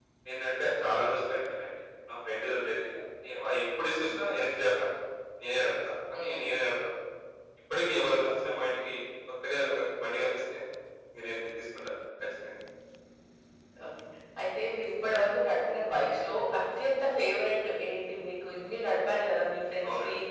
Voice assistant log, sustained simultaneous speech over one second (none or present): none